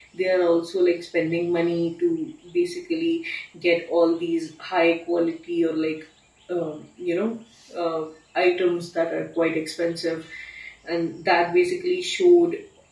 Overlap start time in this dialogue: none

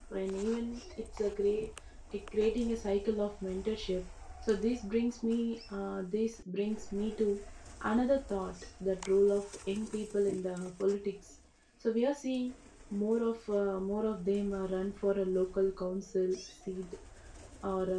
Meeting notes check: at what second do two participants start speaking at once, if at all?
none

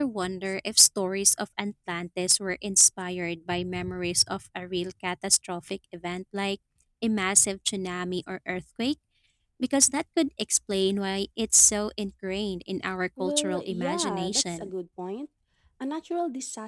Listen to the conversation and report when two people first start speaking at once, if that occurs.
13 s

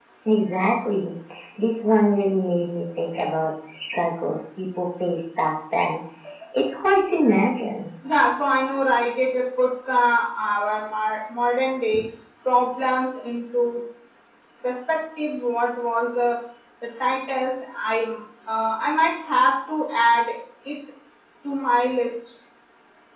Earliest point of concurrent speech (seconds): none

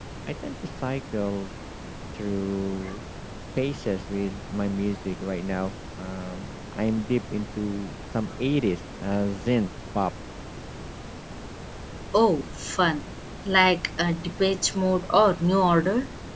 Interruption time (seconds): none

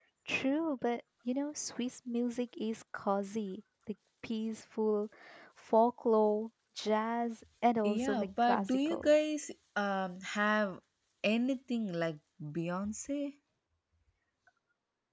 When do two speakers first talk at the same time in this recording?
8 s

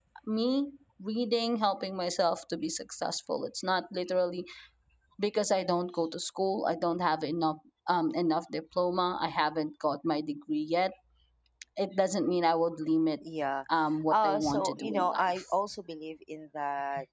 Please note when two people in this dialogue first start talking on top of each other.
14 s

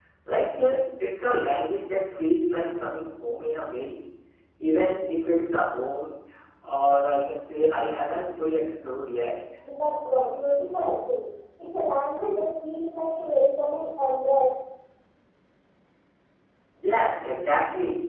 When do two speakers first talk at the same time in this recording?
none

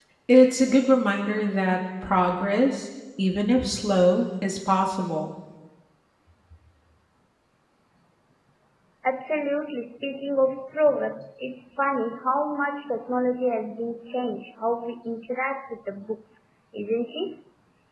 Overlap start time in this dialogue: none

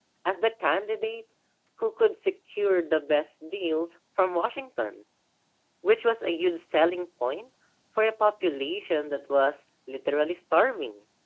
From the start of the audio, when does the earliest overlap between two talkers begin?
none

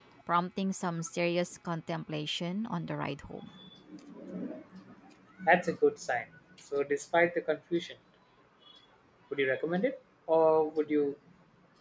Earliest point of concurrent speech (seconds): none

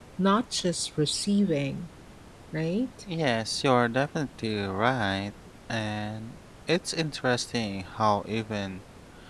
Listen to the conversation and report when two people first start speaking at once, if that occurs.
none

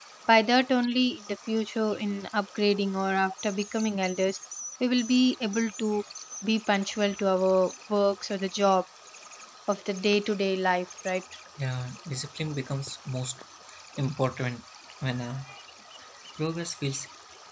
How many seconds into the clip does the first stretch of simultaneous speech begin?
none

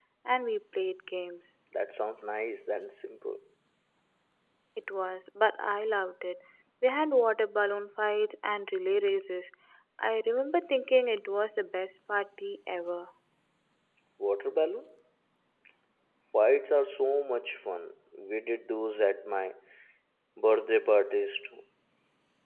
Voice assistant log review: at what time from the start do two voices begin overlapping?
none

